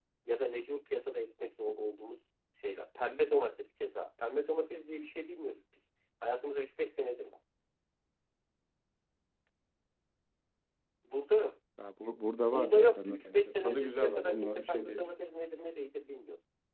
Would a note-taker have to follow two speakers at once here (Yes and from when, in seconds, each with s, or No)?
Yes, from 12.4 s